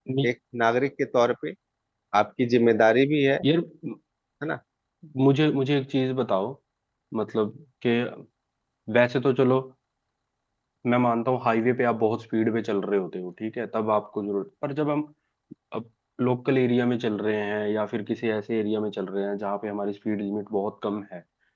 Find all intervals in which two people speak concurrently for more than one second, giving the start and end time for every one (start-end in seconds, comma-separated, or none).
none